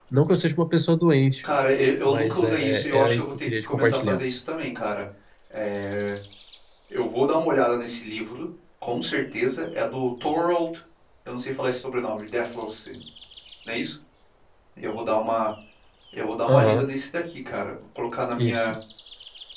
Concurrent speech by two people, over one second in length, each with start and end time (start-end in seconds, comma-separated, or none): 2.0-4.2